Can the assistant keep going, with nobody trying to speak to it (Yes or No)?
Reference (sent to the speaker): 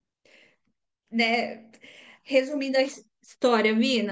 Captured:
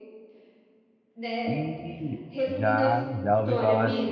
No